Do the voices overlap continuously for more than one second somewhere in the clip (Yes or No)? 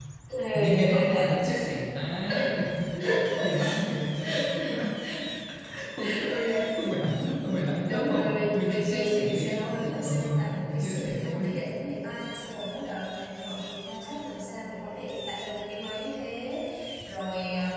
Yes